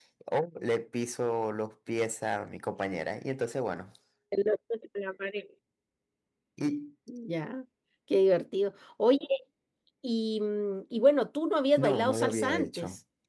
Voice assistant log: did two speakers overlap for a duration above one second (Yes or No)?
Yes